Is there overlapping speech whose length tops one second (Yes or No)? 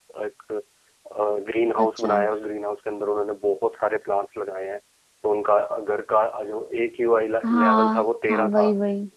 Yes